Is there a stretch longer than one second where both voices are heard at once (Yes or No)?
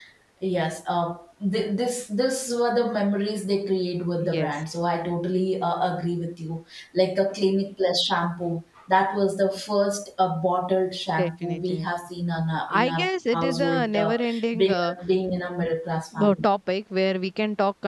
Yes